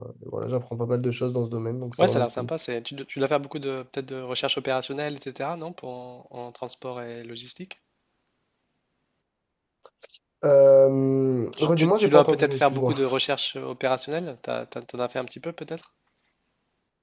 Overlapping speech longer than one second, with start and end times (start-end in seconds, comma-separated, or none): 11.6-12.9